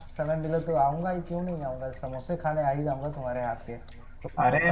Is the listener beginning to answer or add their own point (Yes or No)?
No